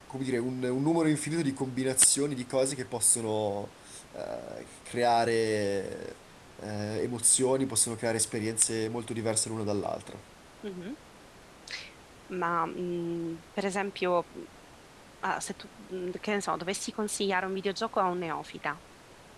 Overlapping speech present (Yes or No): No